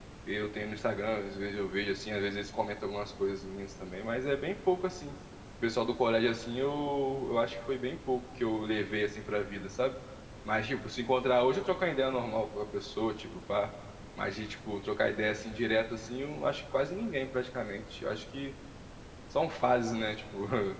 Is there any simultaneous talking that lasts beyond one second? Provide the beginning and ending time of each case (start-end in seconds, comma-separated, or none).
none